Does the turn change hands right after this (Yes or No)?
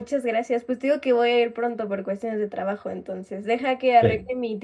No